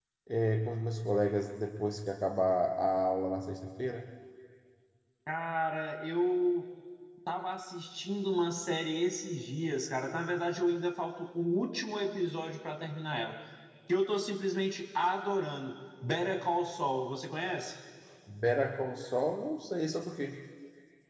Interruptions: none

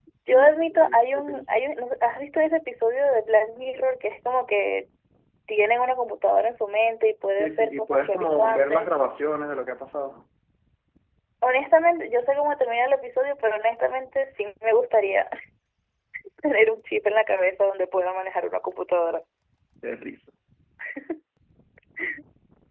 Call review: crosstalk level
present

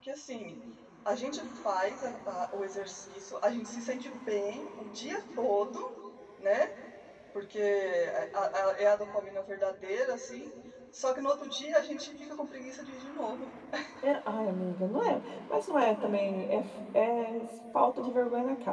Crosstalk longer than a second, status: none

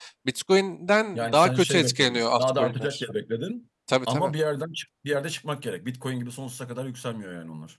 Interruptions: present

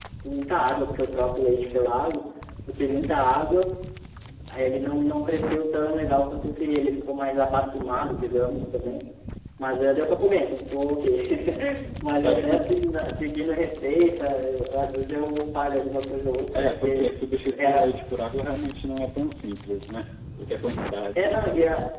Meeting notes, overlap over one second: none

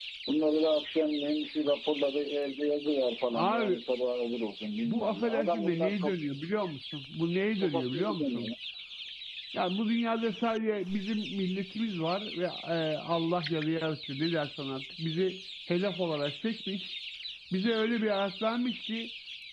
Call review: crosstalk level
present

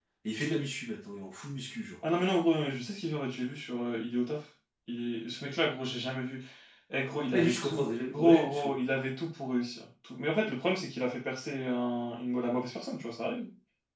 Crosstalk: present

